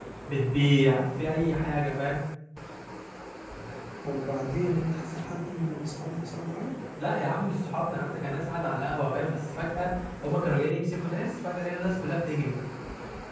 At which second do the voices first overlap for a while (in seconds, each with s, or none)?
none